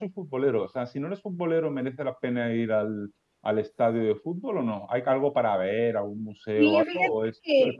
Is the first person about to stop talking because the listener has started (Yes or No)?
Yes